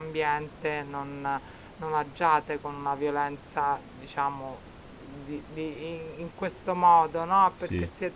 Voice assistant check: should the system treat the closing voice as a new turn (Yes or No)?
No